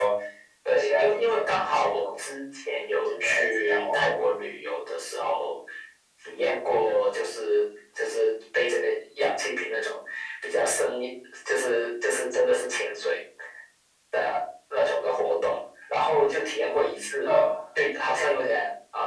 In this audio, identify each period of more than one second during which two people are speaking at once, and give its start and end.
0.8-2.2, 3.0-4.3

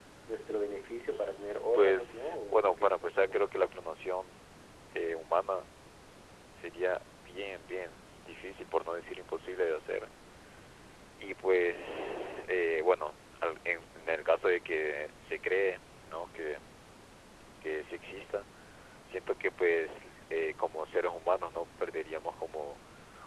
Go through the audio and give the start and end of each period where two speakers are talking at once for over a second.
1.1-3.4

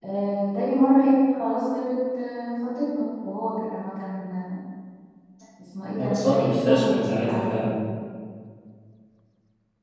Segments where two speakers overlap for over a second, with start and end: 6.0-7.7

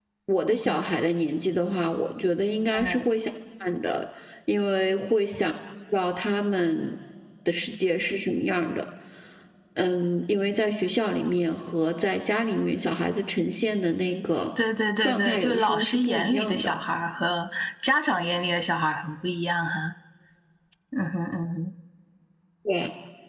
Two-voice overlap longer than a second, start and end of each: 15.0-16.7

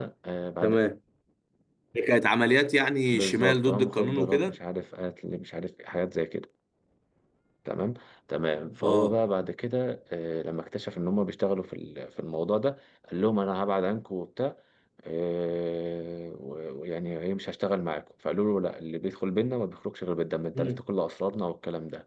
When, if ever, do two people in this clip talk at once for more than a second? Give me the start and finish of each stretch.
3.1-4.6

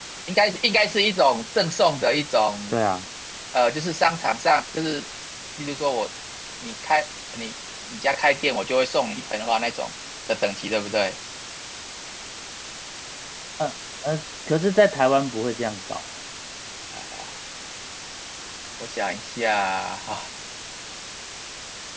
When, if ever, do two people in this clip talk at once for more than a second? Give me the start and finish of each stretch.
none

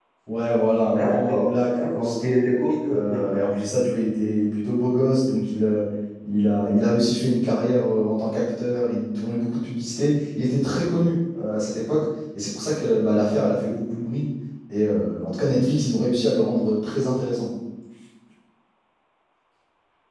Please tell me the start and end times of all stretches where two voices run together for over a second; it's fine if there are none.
0.9-2.5

